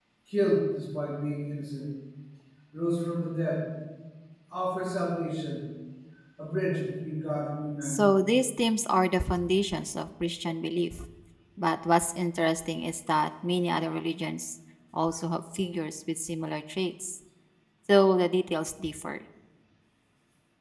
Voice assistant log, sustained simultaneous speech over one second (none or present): none